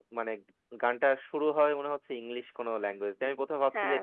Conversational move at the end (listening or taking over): listening